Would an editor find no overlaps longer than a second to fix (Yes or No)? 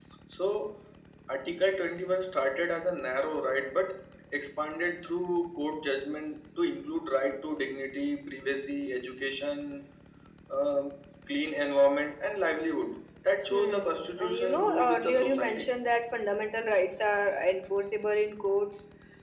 No